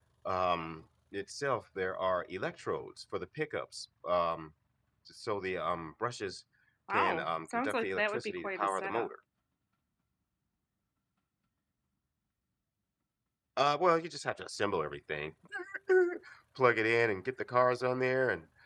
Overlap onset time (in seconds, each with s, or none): 6.9 s